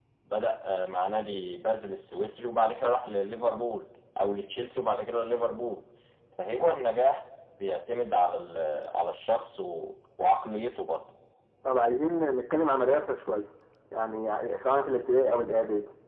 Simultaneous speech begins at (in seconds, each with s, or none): none